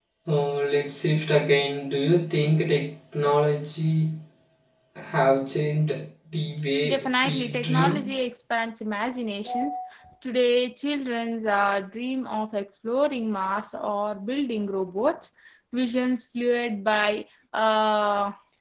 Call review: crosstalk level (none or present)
present